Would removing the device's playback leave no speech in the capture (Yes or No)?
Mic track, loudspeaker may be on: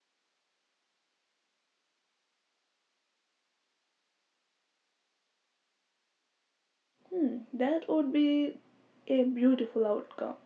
No